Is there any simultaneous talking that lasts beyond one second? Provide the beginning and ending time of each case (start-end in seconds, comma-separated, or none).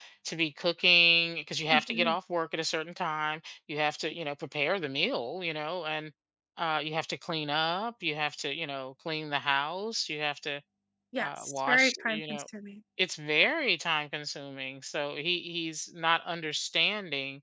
11.2-12.4